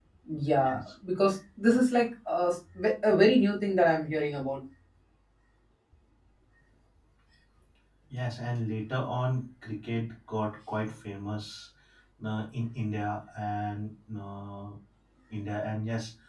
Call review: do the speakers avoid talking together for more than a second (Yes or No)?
Yes